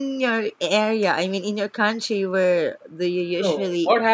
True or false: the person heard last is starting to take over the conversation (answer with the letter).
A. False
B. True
B